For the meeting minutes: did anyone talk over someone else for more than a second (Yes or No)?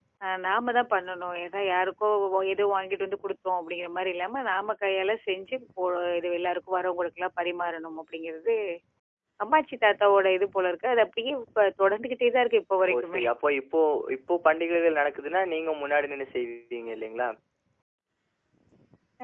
No